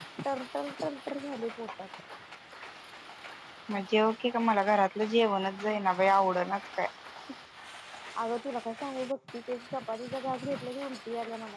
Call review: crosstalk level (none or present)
none